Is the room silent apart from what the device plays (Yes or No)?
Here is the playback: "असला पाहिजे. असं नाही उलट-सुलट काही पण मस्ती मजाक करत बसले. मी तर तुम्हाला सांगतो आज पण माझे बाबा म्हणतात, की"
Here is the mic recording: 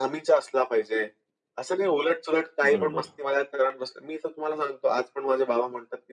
No